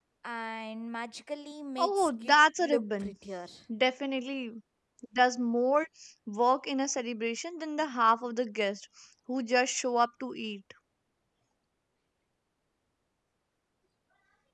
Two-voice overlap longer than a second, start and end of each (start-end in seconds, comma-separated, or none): 1.8-3.1